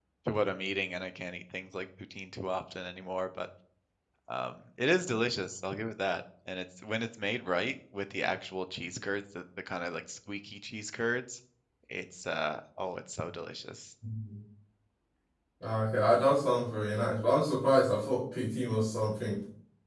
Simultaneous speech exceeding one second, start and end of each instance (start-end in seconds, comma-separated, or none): none